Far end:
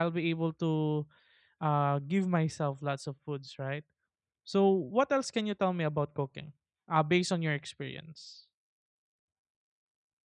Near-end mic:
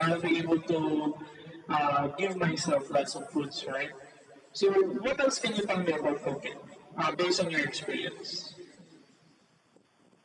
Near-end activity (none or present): none